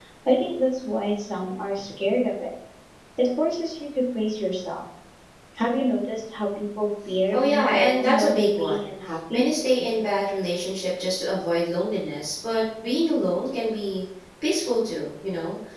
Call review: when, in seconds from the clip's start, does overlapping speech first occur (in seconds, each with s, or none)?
7.3 s